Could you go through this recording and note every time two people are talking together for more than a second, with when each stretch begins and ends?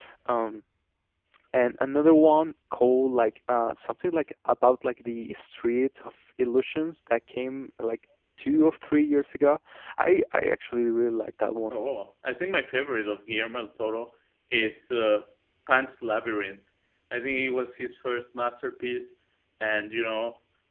none

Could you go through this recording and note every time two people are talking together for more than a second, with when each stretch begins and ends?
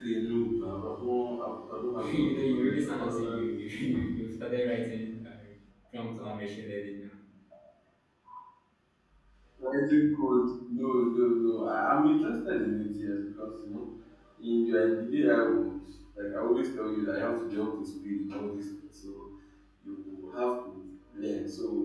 2.1-3.4

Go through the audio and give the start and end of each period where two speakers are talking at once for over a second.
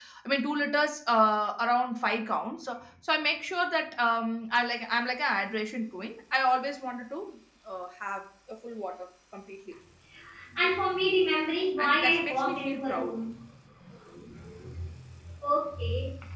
11.8-13.1

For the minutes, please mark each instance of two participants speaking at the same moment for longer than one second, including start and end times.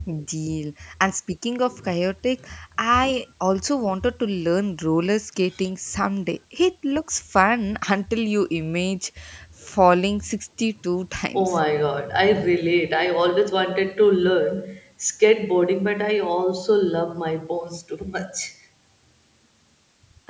none

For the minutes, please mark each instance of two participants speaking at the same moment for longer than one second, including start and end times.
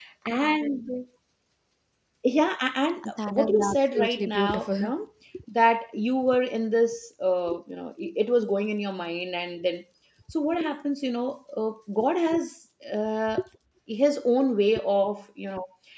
3.3-4.9

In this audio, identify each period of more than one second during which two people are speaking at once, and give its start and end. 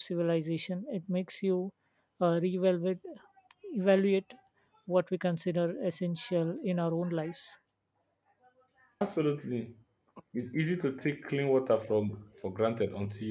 none

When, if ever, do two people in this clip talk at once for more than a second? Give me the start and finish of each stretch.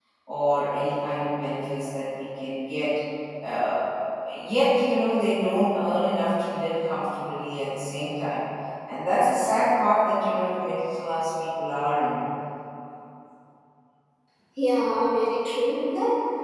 none

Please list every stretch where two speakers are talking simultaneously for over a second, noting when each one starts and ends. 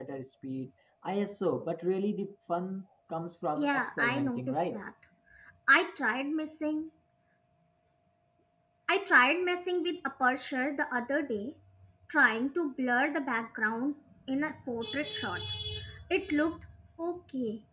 3.6-4.8

